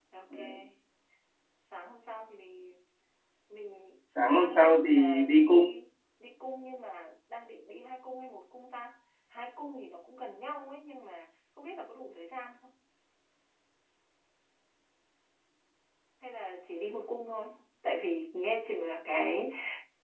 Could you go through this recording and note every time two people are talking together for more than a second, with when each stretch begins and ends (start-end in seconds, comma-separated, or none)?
4.4-5.6